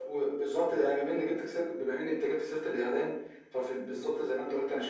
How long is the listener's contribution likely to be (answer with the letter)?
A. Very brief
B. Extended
A